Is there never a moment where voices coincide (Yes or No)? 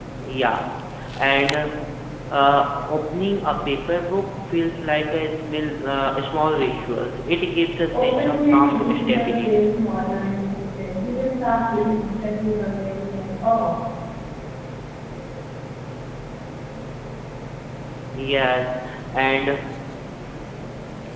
No